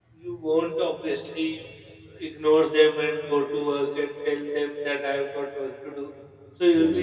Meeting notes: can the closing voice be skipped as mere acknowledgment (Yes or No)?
Yes